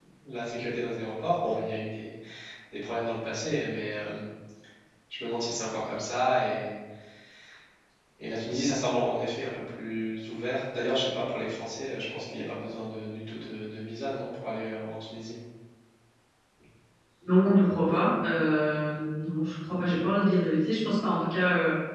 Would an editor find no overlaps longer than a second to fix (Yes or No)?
Yes